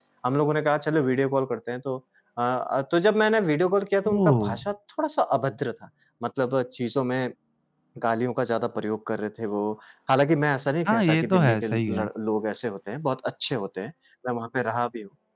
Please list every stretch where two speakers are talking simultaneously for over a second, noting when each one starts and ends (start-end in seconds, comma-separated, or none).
10.9-12.1